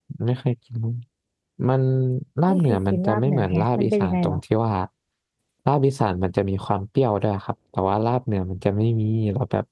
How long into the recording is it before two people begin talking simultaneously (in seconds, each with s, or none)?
2.5 s